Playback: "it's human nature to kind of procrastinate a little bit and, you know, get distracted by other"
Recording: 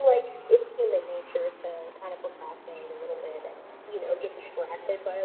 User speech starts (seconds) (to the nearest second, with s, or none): none